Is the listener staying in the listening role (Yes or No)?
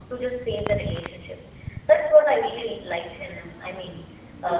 Yes